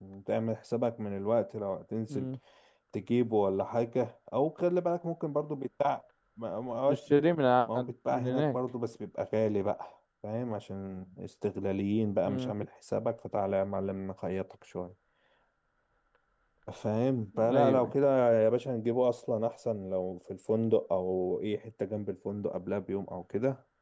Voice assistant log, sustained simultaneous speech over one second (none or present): none